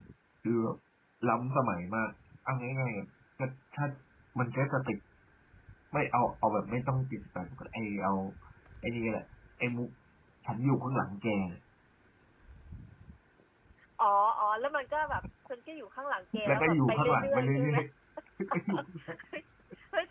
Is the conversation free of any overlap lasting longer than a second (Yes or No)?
No